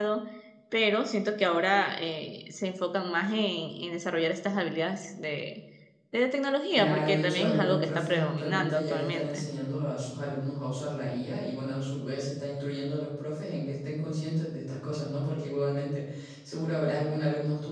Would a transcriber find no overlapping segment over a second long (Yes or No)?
No